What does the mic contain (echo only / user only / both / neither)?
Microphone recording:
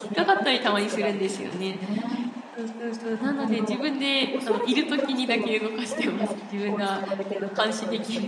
both